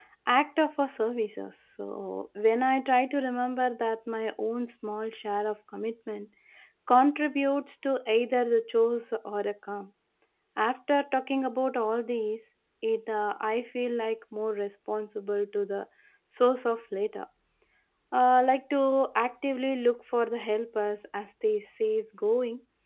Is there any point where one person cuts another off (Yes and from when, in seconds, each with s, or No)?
No